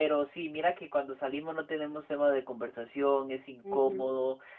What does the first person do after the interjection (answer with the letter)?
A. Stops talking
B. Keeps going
B